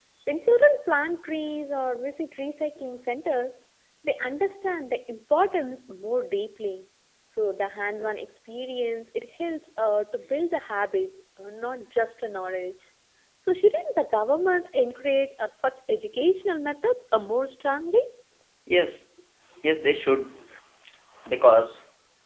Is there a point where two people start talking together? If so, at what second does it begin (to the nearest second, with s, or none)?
none